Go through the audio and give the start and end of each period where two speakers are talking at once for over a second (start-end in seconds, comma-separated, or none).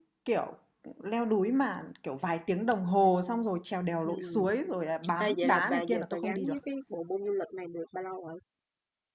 5.2-6.6